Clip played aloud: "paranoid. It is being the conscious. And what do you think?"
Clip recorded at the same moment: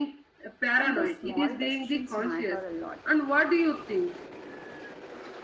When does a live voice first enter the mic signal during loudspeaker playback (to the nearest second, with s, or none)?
1 s